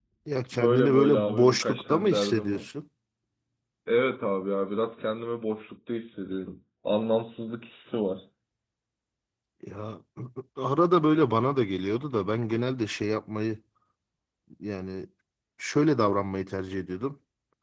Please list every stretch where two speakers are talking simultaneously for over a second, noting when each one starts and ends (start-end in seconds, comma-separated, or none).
0.5-2.6